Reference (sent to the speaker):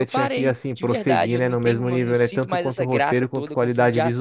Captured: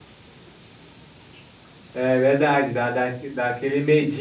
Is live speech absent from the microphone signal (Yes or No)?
No